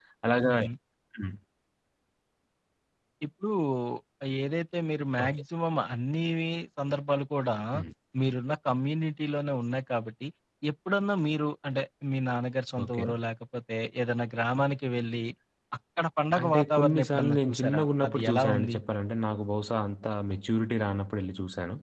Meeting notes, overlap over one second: present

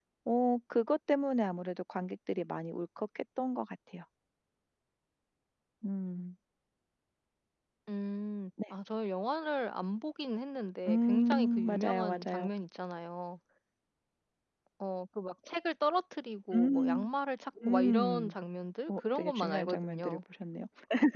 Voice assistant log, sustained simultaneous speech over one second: present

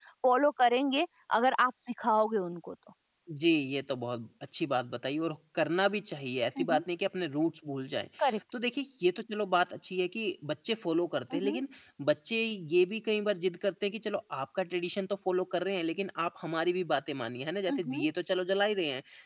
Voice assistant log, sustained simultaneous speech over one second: none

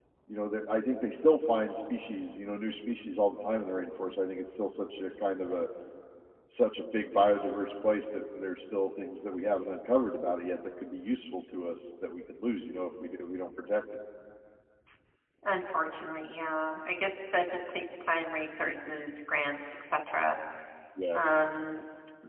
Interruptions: none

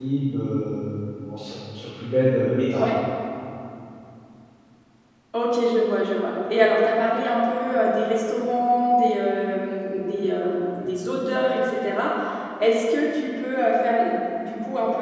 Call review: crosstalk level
none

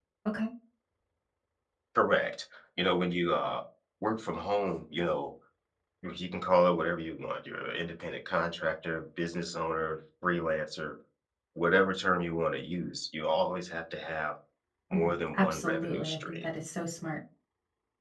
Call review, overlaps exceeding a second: present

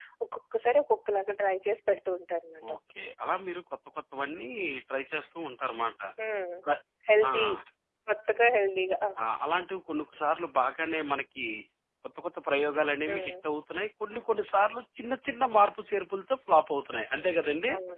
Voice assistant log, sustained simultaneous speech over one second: none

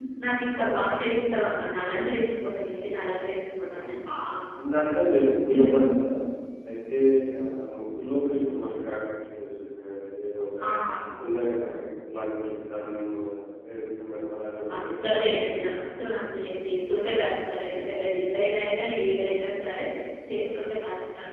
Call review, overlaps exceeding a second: none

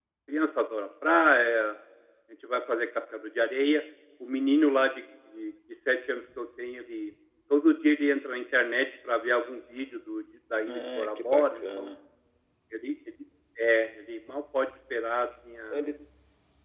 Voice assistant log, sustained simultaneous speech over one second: present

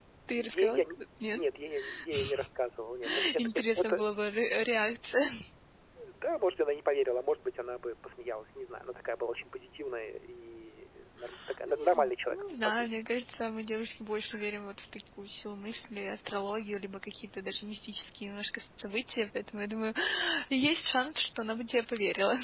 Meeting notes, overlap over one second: present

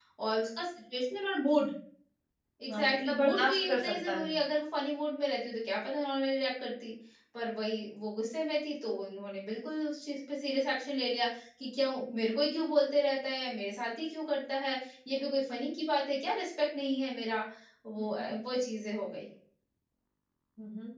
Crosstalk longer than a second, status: present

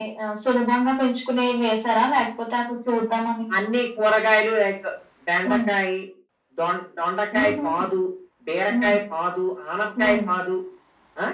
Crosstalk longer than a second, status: none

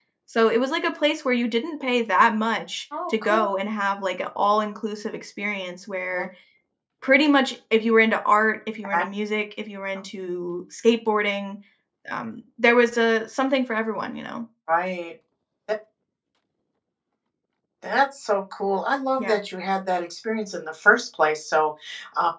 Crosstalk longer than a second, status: none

